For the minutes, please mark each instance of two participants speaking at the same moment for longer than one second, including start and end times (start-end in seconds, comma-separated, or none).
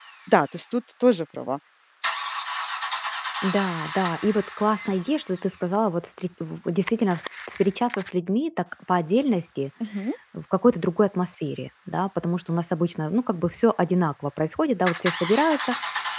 none